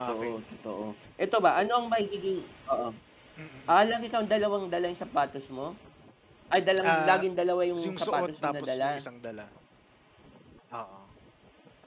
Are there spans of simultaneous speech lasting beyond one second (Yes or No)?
Yes